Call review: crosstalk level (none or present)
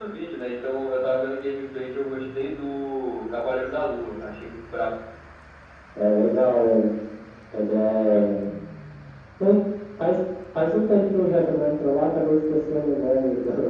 none